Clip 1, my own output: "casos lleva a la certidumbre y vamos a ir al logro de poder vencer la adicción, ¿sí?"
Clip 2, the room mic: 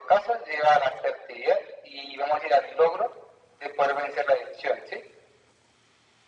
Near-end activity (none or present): none